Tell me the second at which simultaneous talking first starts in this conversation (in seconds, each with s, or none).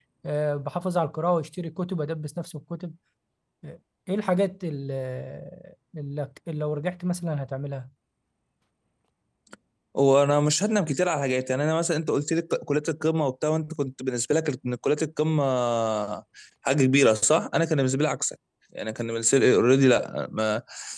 none